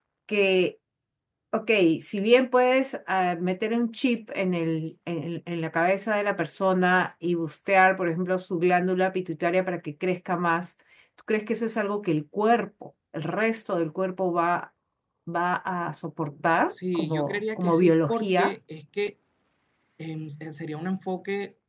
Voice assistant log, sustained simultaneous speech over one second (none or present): present